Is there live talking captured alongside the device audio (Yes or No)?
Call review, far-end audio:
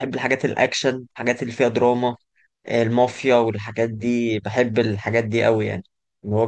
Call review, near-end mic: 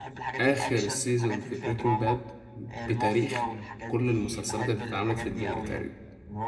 Yes